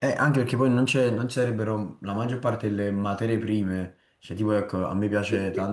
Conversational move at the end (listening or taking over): listening